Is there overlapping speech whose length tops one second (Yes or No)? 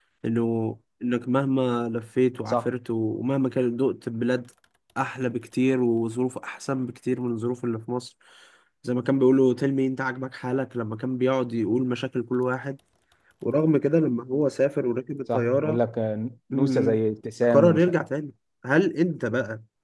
No